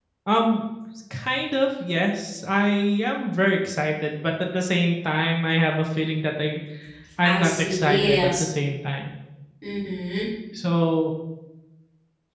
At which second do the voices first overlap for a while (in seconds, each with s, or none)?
7.2 s